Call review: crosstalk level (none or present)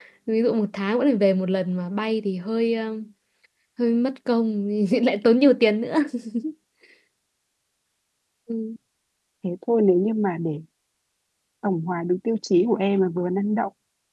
none